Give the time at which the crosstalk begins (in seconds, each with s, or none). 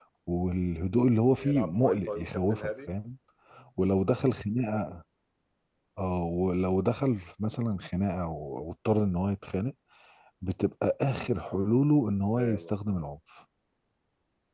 1.4 s